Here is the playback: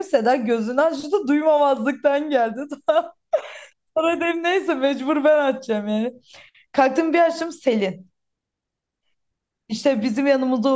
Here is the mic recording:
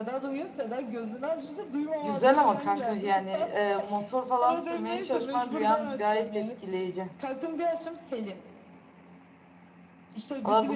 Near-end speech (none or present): present